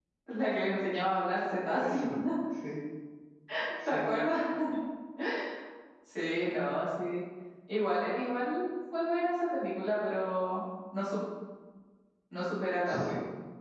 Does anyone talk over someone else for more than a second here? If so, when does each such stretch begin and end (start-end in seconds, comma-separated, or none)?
none